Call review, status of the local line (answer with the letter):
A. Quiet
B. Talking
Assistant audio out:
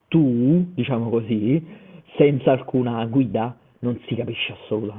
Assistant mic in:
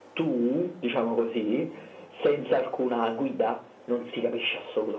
A